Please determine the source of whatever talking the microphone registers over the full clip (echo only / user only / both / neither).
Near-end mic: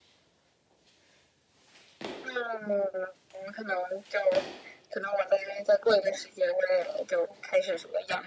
echo only